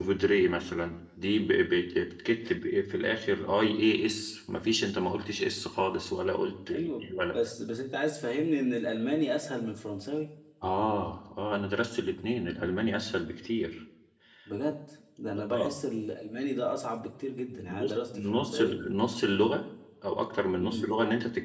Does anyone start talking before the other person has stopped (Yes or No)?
Yes